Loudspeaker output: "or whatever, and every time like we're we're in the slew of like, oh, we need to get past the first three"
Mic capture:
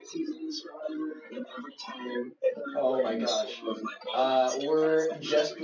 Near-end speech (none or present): present